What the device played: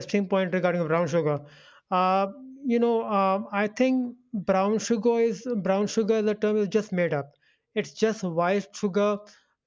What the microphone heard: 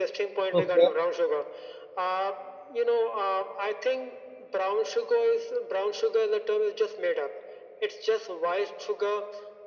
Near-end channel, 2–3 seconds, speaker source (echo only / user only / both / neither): echo only